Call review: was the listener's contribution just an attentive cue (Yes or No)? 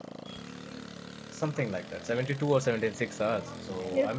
No